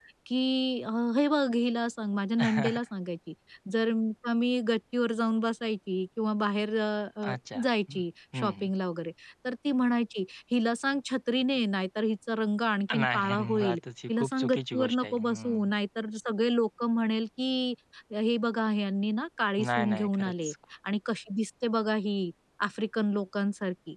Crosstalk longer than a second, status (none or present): present